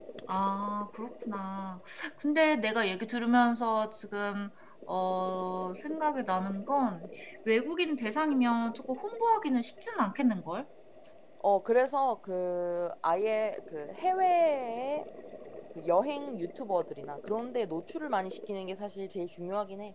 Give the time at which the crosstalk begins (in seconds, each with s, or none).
none